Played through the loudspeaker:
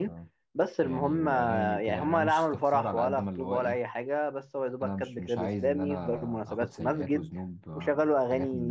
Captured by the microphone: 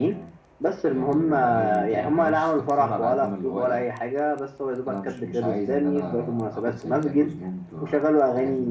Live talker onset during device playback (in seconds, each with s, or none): none